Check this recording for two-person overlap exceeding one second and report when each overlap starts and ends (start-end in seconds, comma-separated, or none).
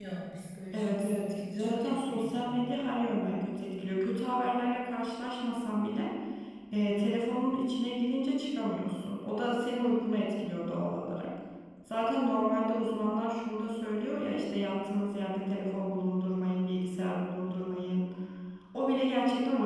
0.7-2.6